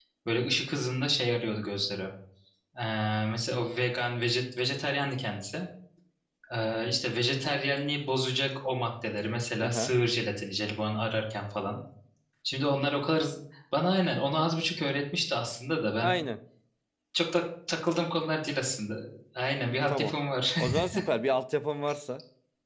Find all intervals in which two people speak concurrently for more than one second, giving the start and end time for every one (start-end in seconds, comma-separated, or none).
none